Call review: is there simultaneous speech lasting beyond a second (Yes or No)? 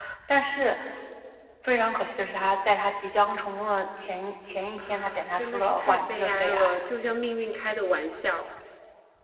Yes